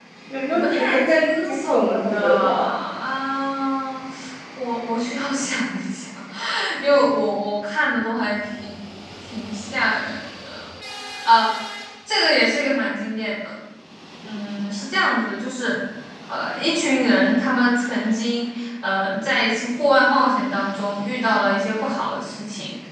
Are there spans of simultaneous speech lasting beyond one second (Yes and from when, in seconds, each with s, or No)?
Yes, from 0.5 s